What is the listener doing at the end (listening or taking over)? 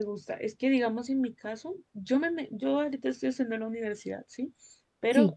listening